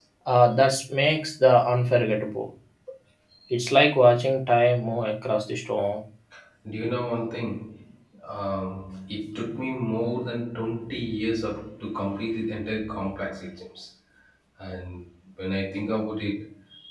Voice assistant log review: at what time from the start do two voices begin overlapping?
none

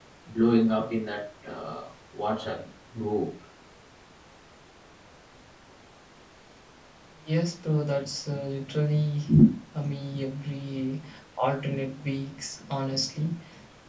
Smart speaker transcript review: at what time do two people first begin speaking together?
none

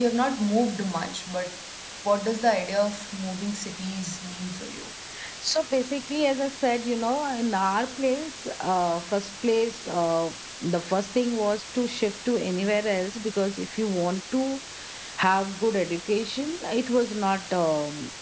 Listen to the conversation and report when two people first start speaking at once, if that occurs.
none

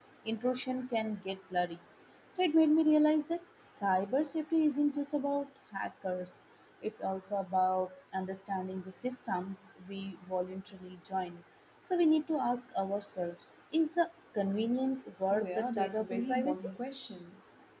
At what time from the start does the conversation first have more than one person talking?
15.3 s

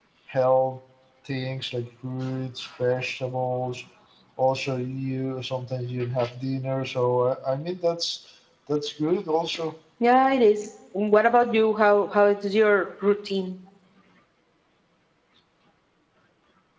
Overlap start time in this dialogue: none

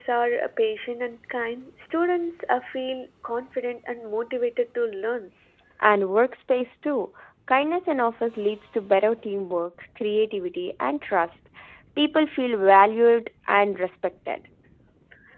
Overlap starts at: none

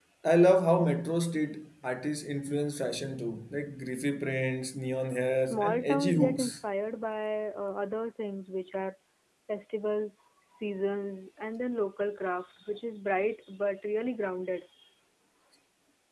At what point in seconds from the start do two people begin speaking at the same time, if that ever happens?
5.3 s

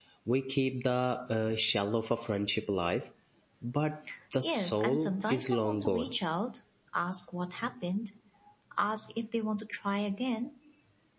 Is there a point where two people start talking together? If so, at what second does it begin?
4.4 s

